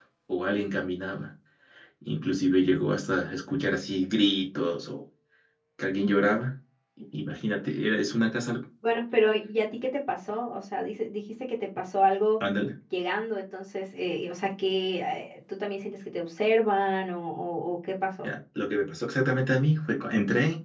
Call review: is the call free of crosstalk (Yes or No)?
Yes